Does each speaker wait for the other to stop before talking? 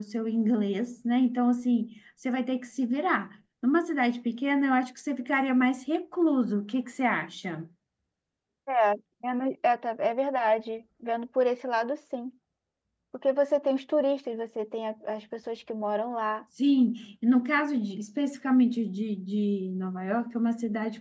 Yes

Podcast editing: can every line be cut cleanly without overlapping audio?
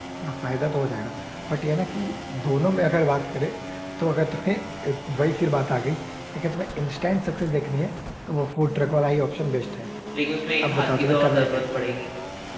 No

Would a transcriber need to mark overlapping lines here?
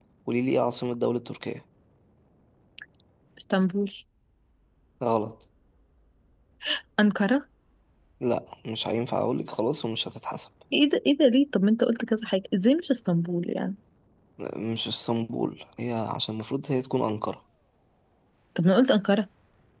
No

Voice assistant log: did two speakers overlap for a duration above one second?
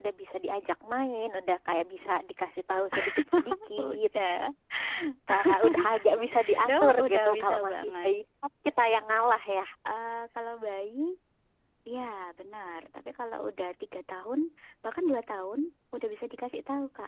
Yes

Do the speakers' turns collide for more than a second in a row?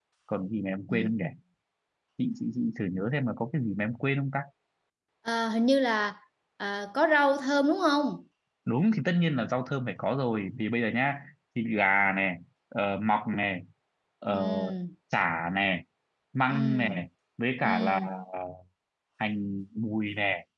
No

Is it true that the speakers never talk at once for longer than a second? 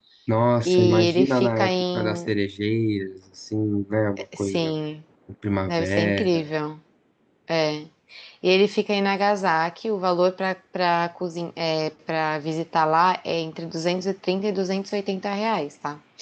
No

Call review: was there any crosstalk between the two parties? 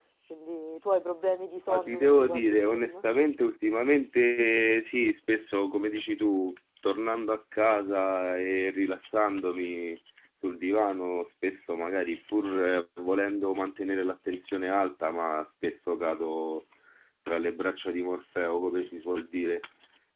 Yes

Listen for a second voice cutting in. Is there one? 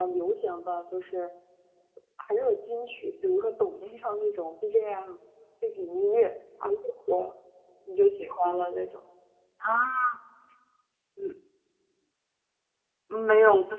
No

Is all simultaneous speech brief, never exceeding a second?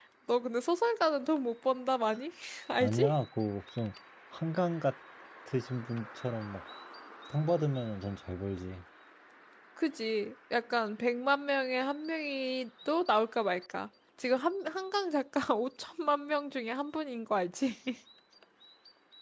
Yes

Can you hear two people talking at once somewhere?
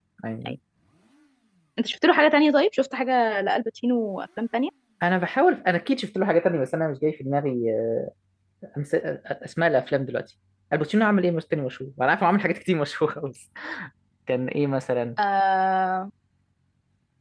No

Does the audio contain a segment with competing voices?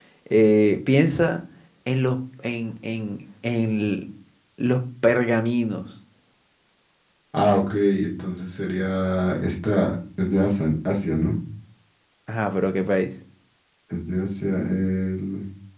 No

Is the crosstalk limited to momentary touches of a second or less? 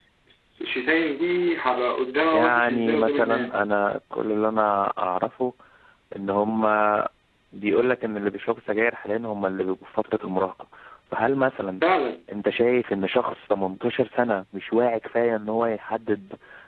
No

